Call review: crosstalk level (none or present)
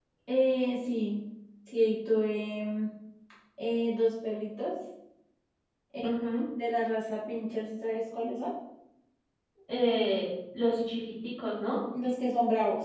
none